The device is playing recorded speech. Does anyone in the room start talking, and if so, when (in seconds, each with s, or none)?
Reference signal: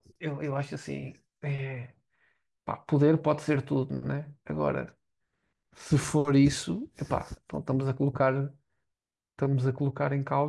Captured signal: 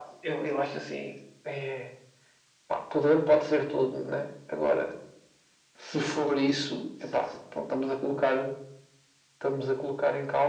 none